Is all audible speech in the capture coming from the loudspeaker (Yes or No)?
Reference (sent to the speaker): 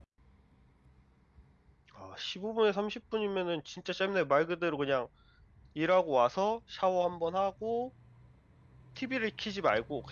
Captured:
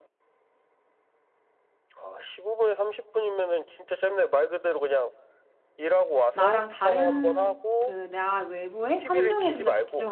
No